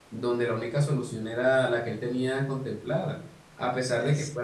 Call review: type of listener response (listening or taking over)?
listening